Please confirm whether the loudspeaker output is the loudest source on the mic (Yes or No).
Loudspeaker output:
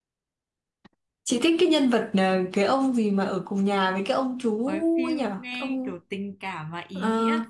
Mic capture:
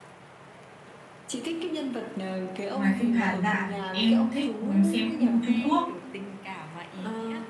No